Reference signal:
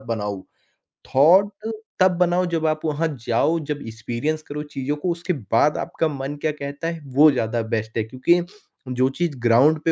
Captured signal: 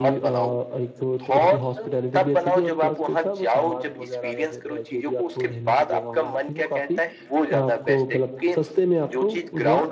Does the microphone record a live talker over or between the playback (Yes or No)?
Yes